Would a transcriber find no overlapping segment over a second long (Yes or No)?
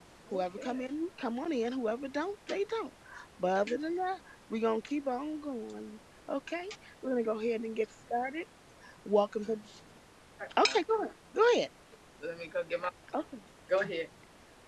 Yes